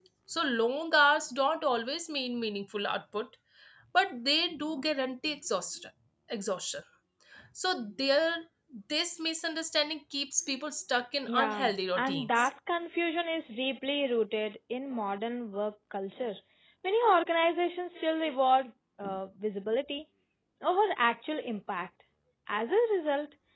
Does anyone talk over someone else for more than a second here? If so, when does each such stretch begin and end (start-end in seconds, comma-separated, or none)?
11.3-12.5